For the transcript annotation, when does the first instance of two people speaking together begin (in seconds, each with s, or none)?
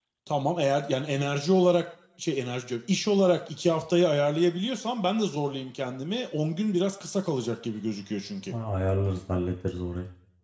none